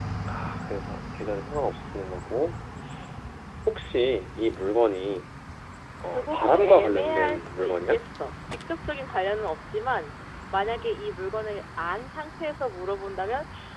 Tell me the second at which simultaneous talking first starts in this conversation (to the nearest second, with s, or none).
6 s